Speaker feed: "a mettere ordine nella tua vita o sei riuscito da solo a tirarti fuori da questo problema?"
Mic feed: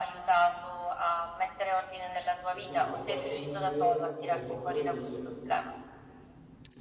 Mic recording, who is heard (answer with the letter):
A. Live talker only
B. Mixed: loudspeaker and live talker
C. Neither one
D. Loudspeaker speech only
B